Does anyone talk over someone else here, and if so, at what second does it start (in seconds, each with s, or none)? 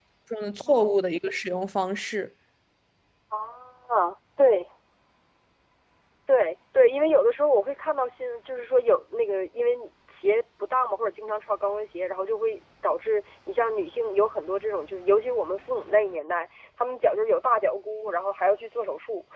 none